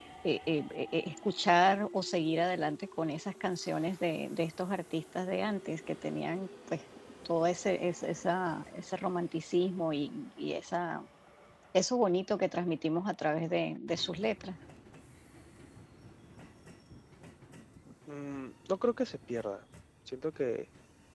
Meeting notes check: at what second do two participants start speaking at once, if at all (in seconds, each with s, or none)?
none